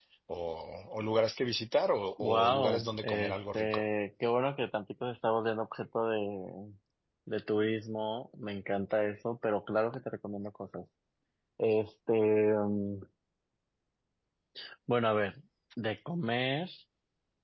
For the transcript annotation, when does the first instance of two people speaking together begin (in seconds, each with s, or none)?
2.2 s